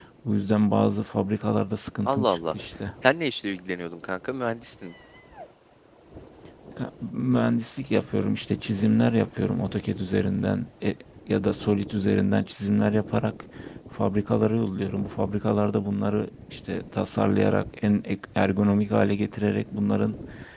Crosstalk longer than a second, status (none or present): none